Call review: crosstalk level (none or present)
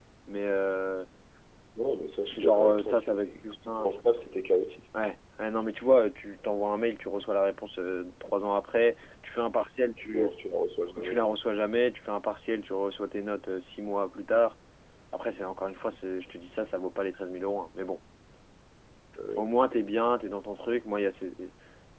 present